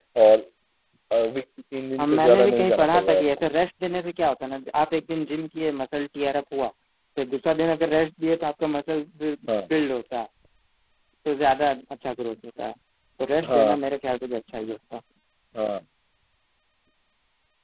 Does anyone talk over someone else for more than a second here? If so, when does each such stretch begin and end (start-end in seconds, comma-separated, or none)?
2.0-3.3